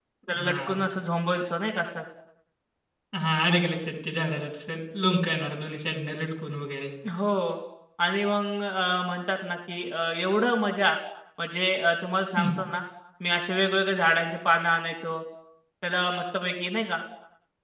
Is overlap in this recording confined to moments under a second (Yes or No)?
Yes